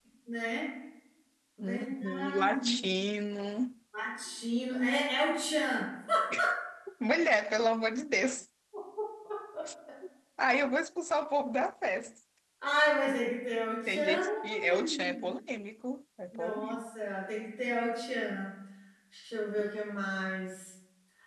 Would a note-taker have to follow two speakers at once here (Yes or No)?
Yes